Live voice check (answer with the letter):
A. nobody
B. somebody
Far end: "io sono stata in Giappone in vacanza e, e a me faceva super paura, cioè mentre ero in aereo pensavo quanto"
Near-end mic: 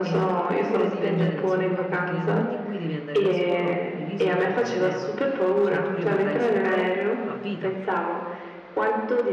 B